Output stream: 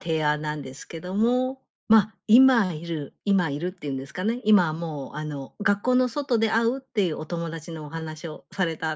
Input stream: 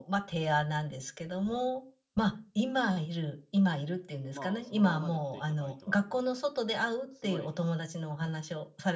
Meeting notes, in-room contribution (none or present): present